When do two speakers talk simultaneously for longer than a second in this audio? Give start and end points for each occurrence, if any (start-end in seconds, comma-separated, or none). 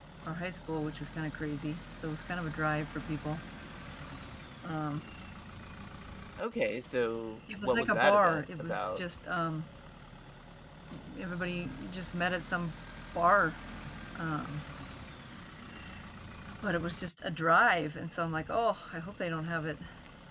7.6-9.0